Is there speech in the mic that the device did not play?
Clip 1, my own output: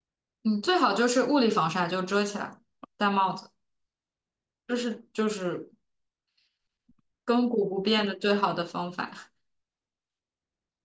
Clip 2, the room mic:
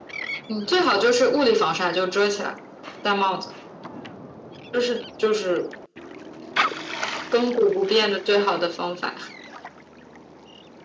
No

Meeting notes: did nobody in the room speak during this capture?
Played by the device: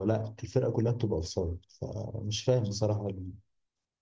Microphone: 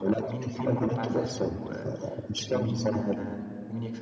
No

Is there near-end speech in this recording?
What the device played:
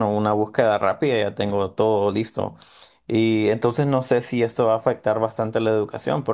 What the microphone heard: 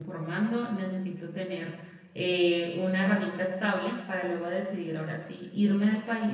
Yes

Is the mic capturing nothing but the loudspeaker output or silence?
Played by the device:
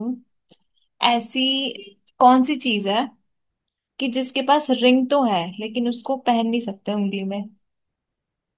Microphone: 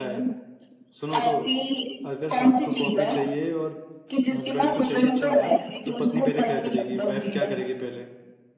No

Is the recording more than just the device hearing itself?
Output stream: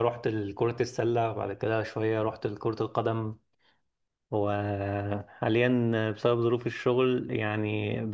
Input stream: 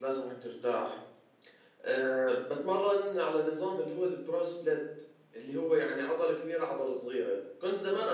Yes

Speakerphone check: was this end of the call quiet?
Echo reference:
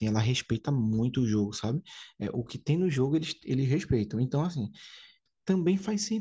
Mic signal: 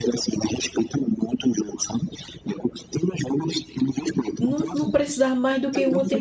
No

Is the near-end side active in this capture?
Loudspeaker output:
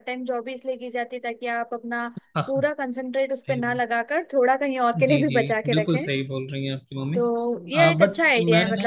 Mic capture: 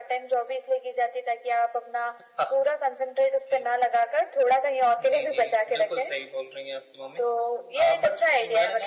No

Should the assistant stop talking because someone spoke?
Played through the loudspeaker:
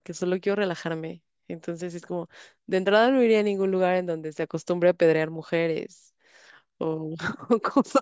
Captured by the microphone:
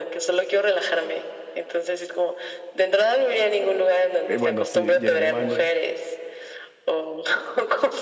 Yes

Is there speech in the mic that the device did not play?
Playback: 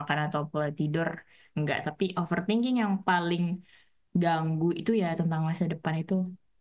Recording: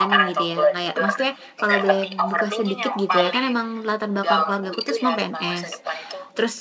Yes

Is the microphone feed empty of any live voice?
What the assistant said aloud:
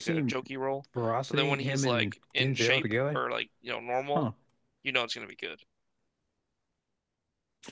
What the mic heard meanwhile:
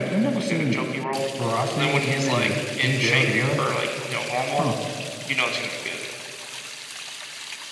Yes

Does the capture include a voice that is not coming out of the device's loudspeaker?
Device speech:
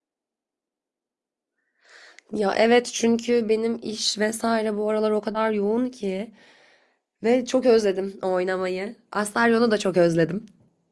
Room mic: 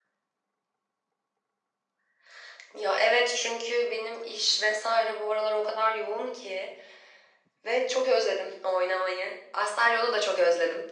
No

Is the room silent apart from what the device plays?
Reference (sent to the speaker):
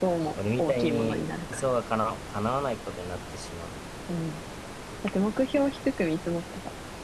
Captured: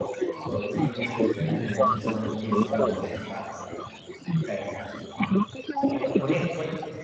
No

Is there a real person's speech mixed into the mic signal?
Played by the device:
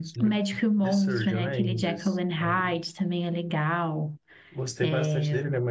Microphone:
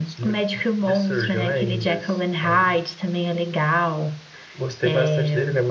No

